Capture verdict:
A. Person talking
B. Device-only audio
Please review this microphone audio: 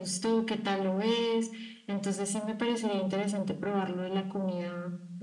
B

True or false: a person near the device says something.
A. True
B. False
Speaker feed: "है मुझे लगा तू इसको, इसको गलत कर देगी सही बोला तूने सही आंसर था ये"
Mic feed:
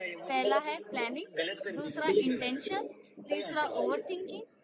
A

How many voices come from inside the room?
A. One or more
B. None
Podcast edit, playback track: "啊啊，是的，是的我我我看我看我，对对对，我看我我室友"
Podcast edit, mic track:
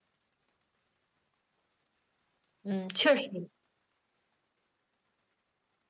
A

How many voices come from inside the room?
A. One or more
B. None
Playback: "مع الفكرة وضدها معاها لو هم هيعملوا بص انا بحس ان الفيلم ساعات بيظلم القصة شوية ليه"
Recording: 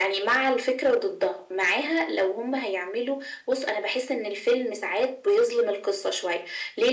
B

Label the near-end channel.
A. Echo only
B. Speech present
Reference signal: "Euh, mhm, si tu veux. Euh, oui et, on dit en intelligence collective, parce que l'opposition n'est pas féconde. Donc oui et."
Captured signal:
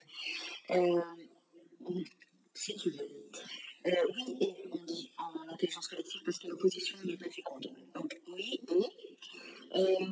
A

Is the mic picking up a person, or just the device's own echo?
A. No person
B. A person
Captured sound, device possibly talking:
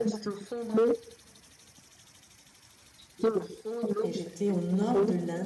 B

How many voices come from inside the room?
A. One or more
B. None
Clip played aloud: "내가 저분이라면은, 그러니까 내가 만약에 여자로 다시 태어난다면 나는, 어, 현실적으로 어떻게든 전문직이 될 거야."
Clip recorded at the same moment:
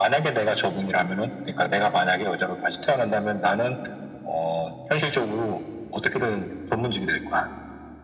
B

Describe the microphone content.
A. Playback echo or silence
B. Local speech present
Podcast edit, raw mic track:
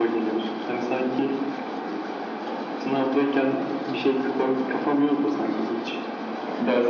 A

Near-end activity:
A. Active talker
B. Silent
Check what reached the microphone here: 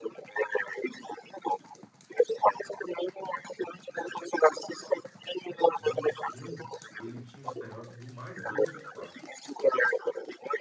A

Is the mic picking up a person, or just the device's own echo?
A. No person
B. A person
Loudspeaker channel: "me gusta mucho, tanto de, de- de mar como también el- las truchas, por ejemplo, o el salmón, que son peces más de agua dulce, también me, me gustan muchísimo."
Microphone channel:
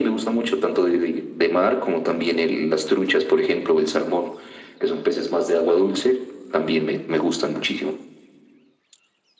A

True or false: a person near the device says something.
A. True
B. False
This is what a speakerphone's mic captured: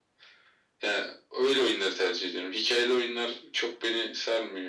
B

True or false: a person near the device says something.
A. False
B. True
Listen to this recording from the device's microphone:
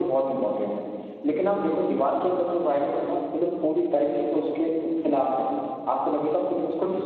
A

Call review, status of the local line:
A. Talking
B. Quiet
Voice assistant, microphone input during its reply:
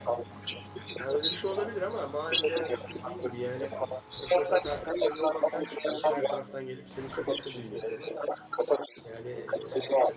A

